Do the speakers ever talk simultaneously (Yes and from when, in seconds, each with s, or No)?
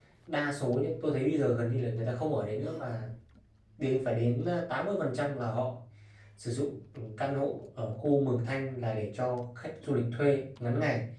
No